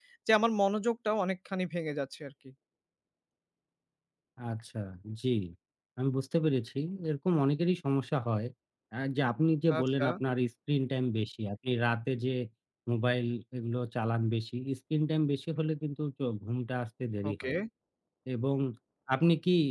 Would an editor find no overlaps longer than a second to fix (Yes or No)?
Yes